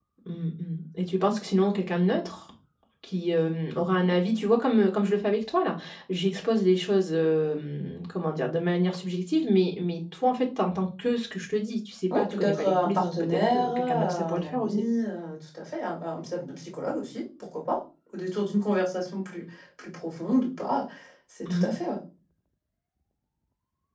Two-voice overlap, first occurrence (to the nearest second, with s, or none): 12 s